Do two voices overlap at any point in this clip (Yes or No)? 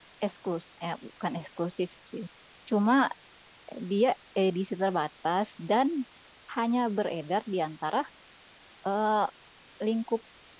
No